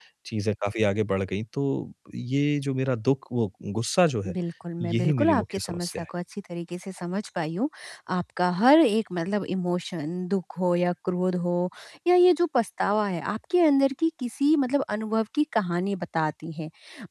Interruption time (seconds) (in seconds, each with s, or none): 4.8 s